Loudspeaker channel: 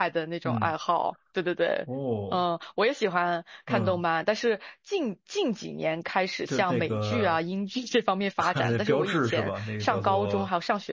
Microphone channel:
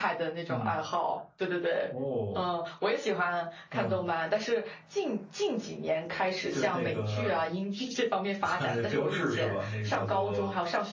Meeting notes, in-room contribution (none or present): none